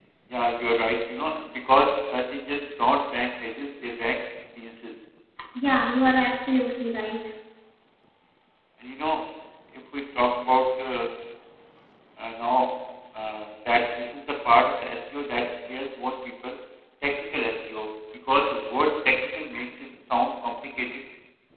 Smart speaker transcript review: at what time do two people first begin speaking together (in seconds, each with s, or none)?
none